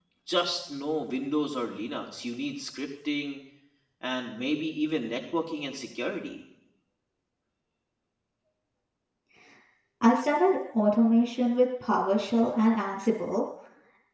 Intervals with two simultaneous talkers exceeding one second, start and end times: none

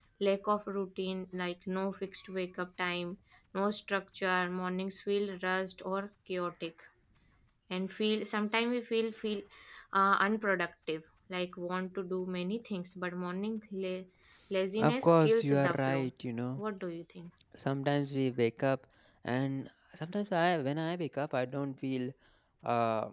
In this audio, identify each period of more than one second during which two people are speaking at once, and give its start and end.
14.8-16.0

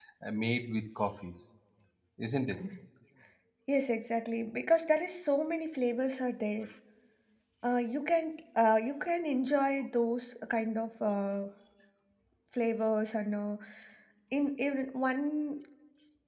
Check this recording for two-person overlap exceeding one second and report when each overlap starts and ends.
none

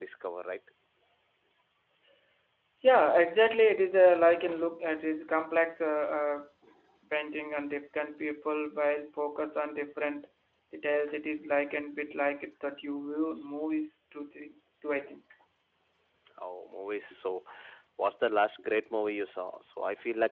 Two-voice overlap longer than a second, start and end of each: none

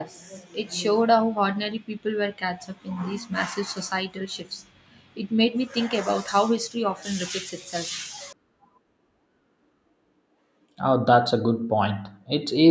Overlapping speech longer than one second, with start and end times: none

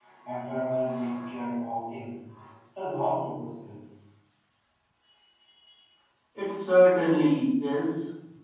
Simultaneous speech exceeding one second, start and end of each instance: none

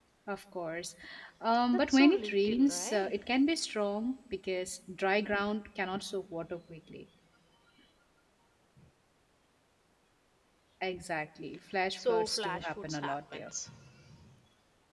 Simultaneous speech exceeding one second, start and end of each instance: 1.7-3.1, 12.0-13.5

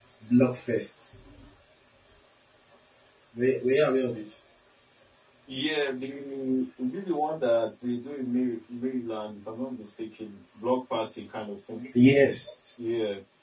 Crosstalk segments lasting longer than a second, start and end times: none

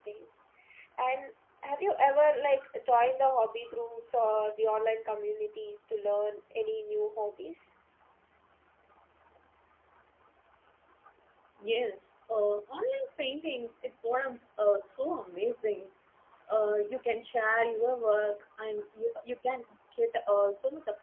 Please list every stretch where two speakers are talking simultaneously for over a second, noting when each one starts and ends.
none

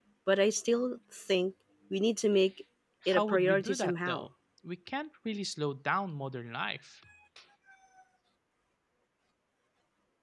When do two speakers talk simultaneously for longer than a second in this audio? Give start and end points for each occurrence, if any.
3.1-4.3

